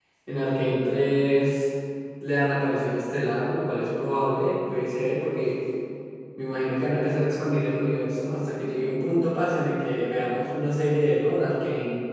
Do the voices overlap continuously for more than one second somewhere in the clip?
No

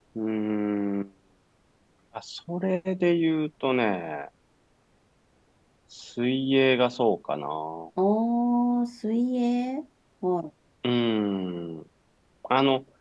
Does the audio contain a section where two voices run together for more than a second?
No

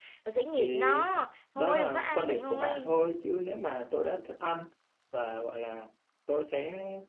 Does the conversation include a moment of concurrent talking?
Yes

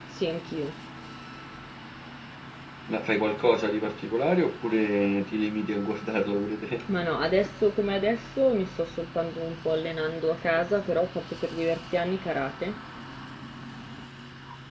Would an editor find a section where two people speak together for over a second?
No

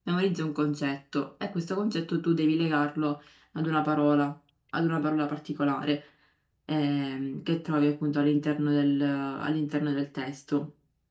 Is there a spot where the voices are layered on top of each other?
No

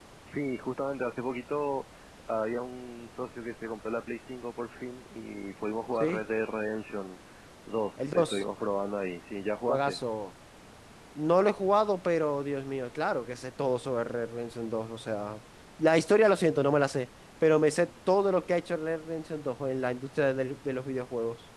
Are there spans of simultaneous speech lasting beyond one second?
No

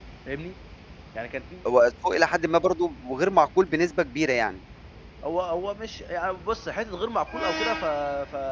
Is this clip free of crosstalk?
Yes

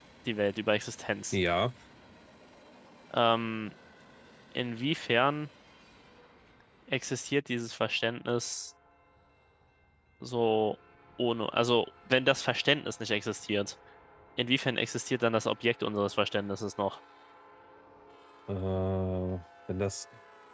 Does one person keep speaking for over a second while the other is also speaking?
No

